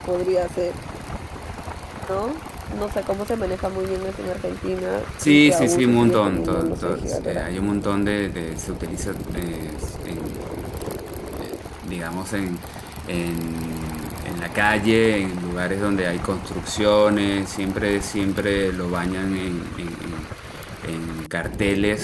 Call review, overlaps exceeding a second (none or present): present